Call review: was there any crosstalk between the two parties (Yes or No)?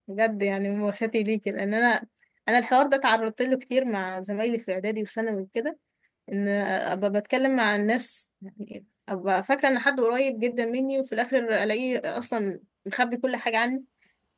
No